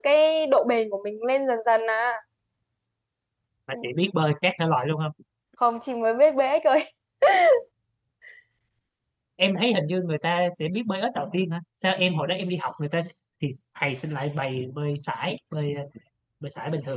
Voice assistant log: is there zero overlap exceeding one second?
Yes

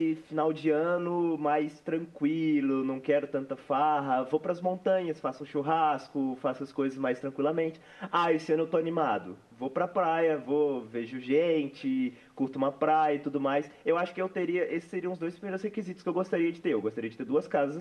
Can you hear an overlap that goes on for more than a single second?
No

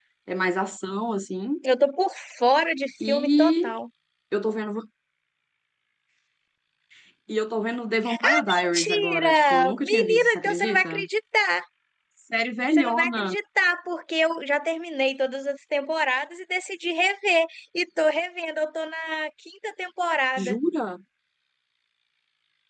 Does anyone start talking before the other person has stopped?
Yes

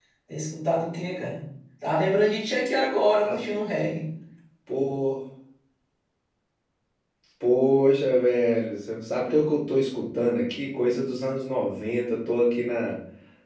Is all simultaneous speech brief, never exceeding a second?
Yes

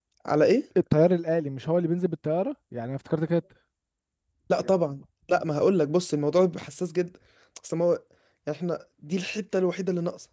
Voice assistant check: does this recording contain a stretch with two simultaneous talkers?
No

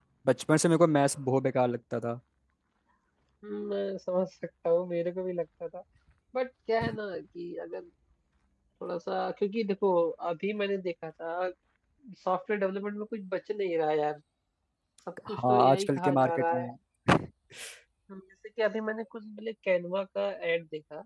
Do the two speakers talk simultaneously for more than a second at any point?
Yes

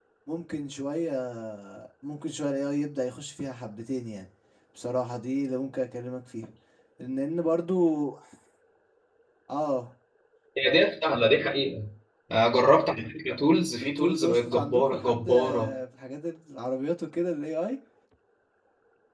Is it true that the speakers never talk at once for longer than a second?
No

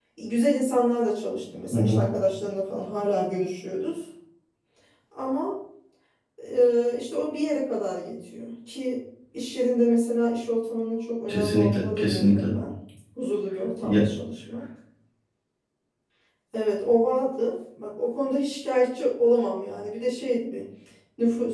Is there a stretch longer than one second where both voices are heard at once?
Yes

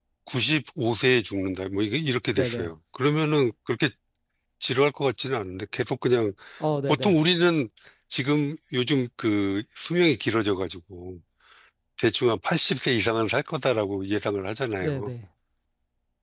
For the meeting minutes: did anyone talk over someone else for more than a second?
No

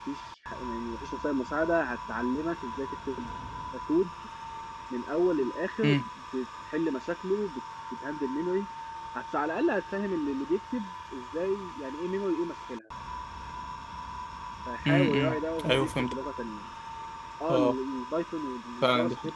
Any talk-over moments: Yes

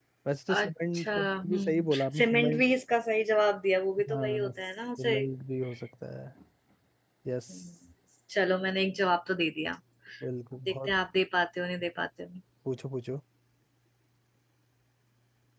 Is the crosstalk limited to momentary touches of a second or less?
No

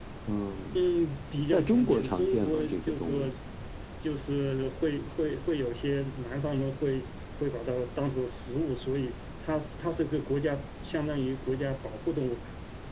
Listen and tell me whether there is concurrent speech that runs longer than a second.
Yes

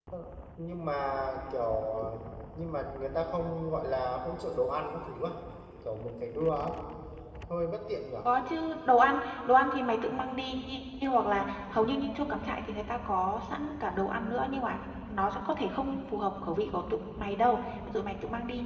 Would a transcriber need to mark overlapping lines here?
No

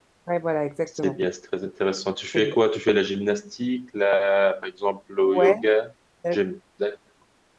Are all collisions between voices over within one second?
Yes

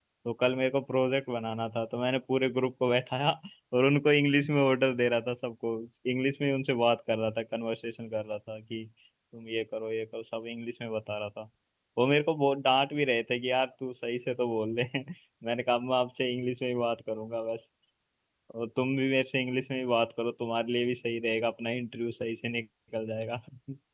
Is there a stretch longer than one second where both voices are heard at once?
No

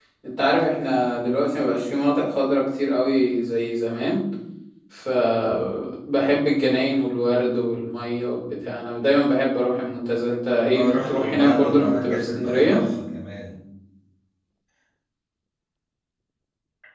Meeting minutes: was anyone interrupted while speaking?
Yes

